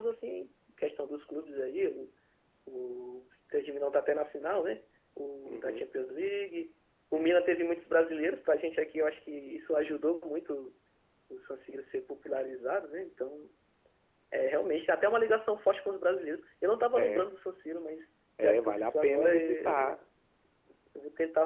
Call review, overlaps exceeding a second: present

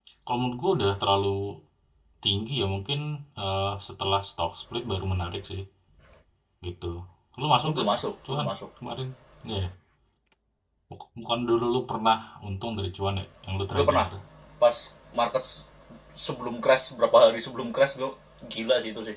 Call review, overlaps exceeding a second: none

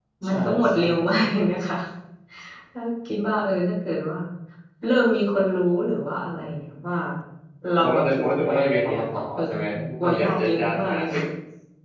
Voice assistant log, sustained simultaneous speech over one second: present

